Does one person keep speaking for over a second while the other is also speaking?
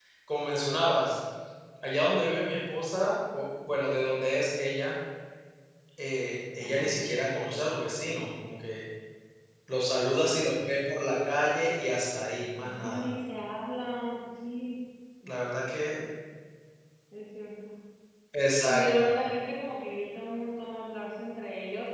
No

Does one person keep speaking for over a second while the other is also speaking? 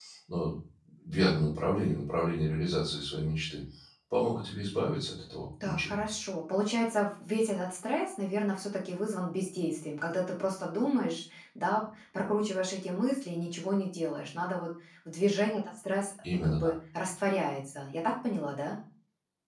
No

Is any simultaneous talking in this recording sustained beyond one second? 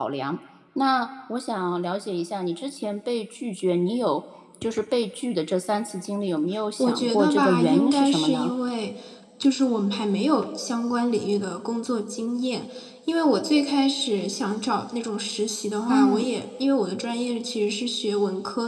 Yes, from 6.8 s

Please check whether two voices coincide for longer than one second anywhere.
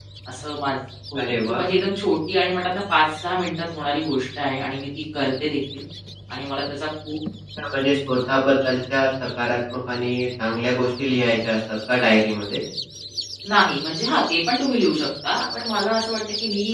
No

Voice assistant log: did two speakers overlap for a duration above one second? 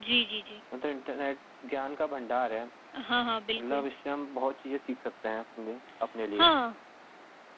No

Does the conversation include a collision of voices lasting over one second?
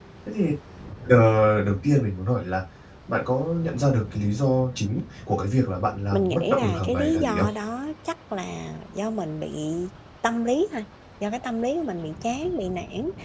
Yes, from 6.1 s

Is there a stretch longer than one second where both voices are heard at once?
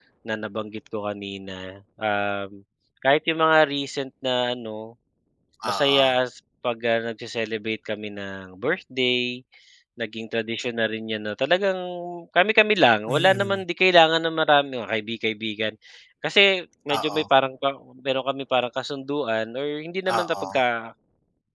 No

